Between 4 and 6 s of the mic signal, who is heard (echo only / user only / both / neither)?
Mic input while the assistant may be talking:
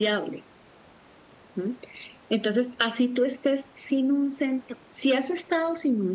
echo only